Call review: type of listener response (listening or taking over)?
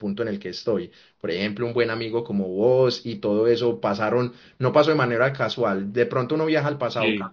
listening